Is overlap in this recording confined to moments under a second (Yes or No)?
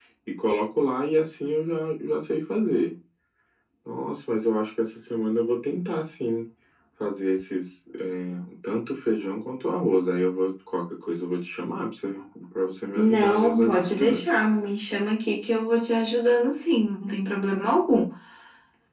No